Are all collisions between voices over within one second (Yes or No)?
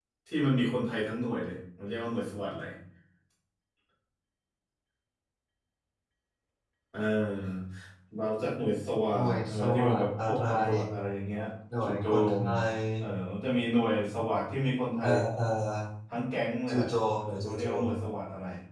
No